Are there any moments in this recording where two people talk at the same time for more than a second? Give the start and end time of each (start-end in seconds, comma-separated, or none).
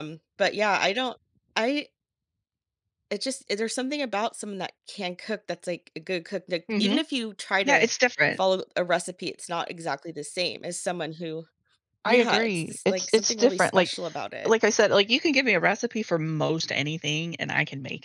12.1-13.9